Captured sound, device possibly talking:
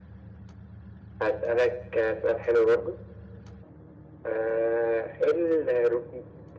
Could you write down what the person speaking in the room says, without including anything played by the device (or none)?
none